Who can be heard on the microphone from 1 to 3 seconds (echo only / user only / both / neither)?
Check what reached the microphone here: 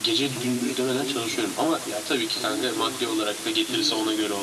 echo only